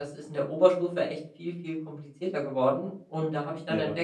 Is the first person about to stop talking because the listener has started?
No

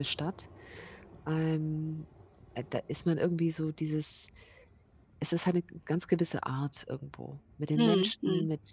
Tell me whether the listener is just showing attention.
Yes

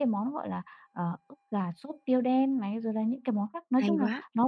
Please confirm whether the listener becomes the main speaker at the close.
No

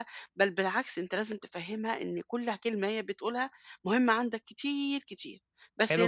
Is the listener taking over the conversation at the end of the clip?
Yes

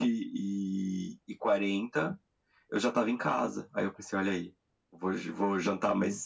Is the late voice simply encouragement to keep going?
Yes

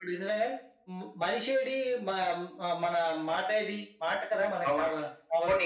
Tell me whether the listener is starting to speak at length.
Yes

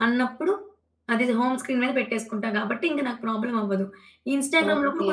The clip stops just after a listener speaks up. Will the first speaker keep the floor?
Yes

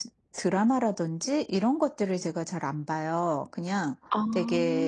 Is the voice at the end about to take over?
No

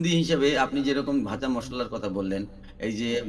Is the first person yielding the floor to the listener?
No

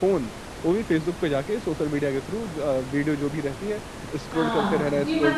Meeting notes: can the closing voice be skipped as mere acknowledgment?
No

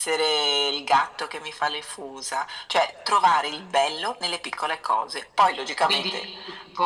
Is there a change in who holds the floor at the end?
Yes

